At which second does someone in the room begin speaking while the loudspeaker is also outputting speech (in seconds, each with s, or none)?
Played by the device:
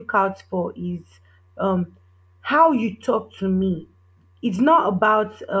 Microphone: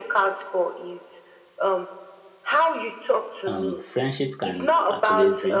3.5 s